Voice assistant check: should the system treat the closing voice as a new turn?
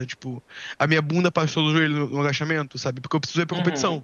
No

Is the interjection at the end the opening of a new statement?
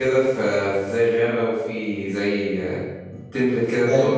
Yes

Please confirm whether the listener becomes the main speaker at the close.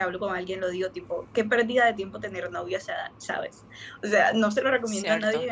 No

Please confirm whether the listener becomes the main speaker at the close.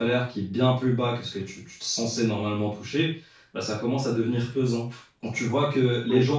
No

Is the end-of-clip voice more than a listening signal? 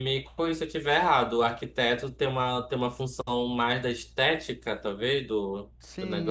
Yes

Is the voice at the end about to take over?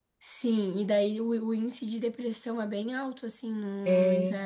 No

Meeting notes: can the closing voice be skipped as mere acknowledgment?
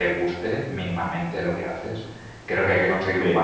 Yes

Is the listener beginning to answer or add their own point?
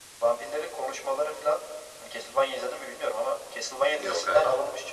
No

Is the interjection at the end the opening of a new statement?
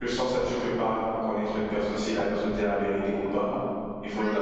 No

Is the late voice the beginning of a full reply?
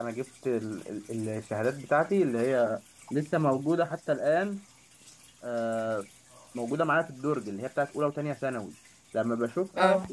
No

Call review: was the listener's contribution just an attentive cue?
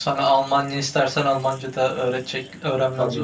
No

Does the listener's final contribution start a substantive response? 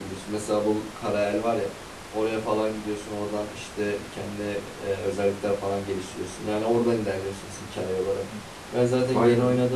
No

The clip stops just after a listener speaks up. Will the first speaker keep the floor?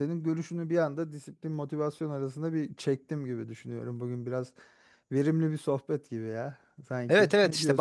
No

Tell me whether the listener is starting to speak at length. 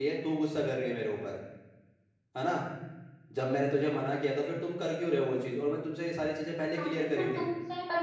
Yes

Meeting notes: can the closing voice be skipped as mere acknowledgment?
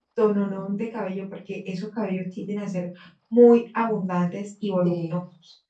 Yes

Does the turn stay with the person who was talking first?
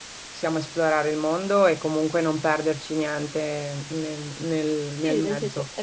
No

